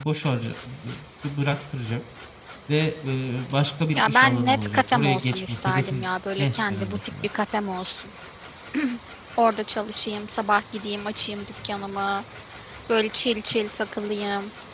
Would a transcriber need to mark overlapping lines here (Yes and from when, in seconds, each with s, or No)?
Yes, from 3.9 s